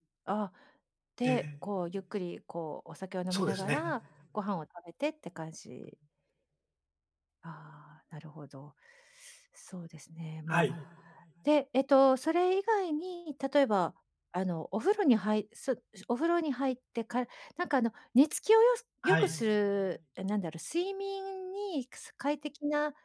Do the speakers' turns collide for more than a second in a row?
No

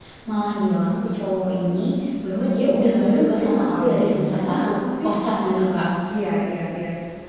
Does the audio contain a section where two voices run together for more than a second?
Yes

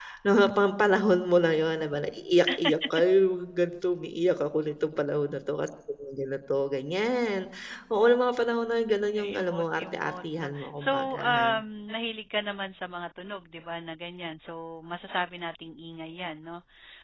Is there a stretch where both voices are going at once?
Yes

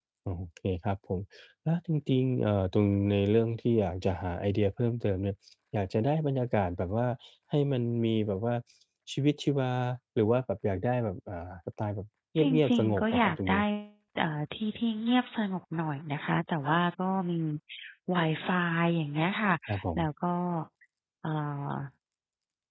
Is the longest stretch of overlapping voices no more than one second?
No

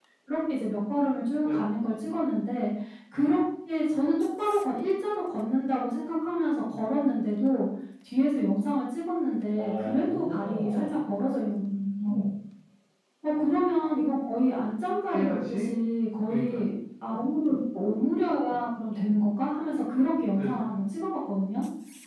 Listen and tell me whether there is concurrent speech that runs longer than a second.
Yes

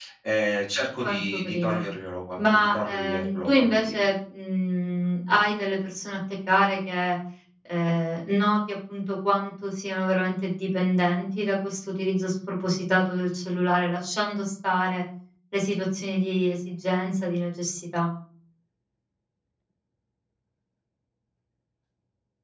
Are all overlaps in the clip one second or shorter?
No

